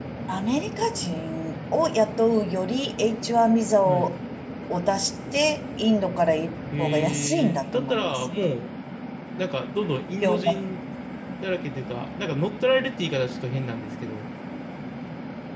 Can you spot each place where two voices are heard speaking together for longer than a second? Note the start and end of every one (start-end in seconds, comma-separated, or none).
6.8-8.3